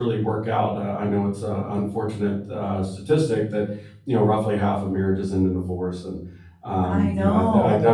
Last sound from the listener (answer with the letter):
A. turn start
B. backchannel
B